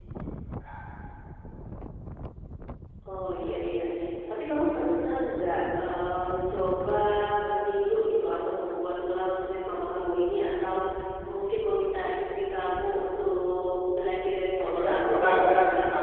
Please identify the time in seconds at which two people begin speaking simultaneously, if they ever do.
14.6 s

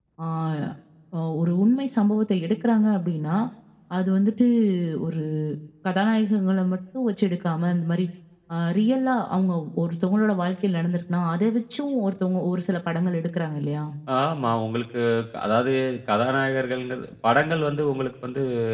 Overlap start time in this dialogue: none

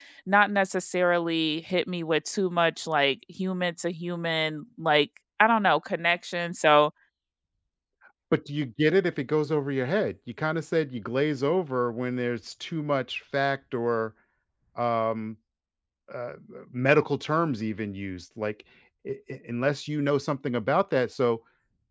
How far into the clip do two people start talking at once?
none

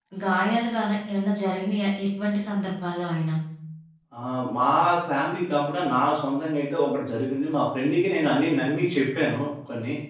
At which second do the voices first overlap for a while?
none

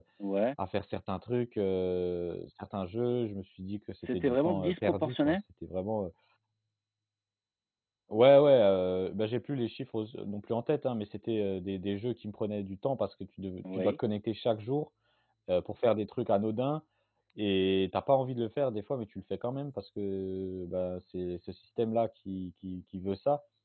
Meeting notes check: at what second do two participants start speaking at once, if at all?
4.1 s

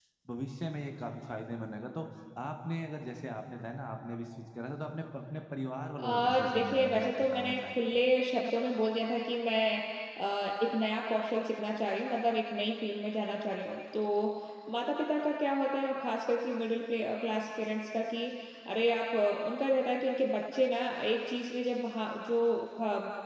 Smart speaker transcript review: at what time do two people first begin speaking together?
6.0 s

